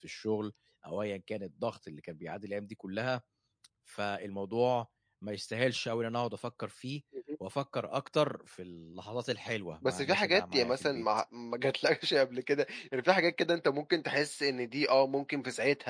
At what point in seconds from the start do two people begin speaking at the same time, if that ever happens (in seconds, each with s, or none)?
9.8 s